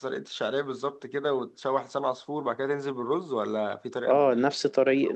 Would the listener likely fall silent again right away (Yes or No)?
No